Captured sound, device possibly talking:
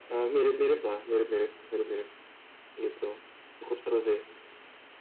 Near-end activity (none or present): none